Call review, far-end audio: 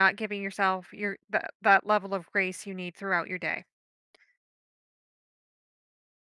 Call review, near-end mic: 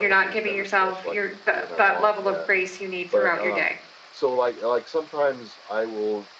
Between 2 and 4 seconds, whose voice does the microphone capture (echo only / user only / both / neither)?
both